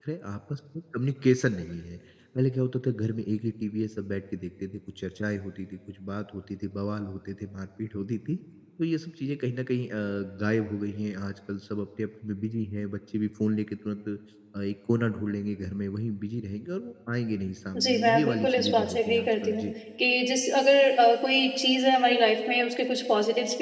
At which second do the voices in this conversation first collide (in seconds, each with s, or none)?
17.7 s